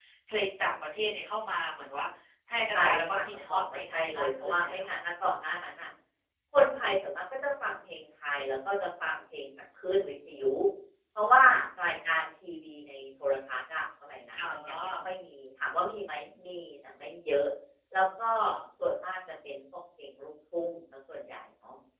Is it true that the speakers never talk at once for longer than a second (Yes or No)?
No